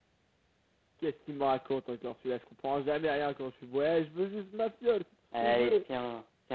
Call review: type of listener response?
taking over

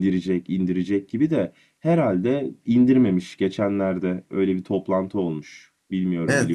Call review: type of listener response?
taking over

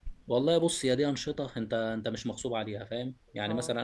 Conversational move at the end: listening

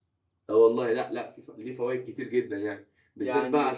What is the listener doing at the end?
listening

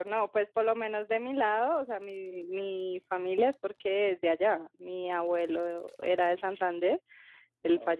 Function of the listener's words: listening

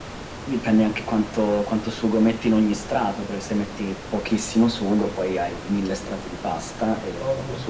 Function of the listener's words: taking over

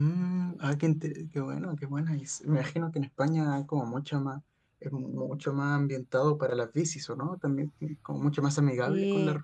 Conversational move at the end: listening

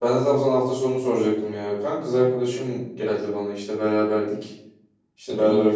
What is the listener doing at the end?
listening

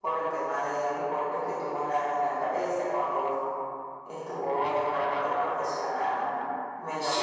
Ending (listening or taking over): listening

